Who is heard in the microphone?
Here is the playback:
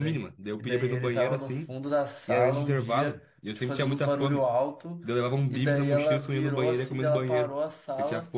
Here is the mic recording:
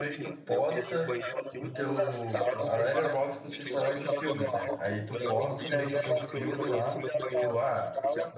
both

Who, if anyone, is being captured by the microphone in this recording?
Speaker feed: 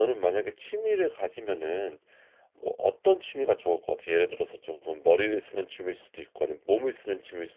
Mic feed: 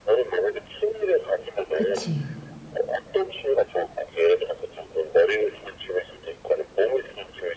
both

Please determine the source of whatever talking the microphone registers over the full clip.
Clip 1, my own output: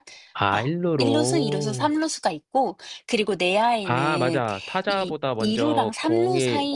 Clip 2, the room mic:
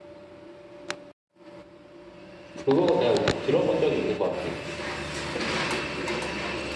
user only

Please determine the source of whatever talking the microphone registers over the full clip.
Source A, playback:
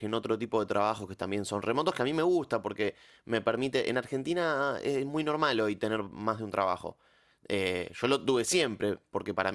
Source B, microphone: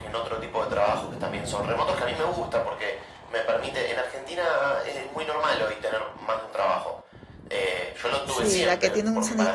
both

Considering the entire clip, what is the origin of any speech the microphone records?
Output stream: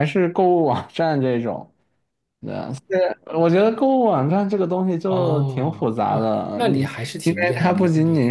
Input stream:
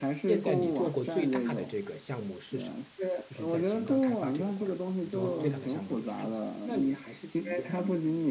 both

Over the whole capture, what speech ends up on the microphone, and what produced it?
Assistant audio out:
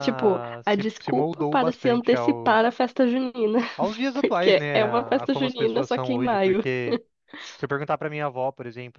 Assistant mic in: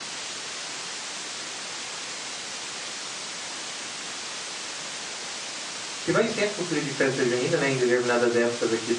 user only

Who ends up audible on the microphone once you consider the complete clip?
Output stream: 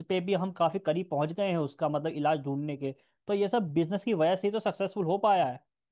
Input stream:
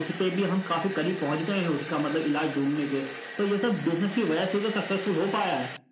echo only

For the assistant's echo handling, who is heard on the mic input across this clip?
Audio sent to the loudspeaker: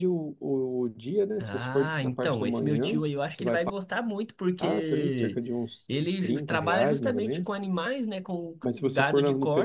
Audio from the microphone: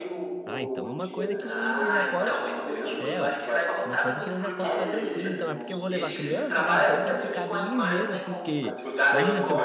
both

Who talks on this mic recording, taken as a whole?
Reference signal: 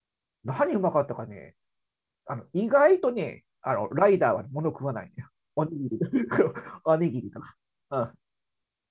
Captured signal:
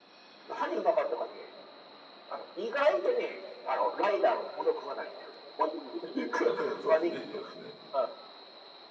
both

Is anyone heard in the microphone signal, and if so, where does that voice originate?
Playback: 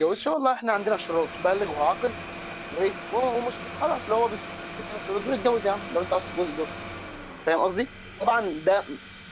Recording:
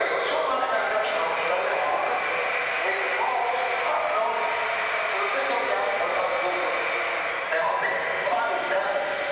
echo only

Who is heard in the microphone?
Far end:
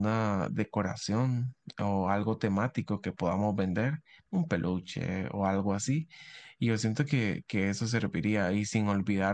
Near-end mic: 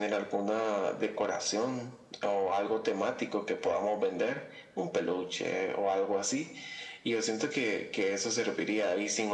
echo only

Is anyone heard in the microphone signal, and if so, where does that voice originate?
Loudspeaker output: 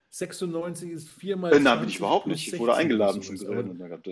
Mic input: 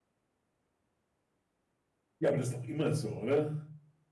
user only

